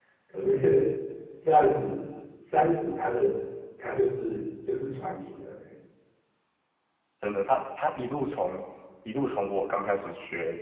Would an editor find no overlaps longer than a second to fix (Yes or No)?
Yes